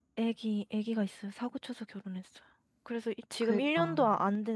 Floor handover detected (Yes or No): No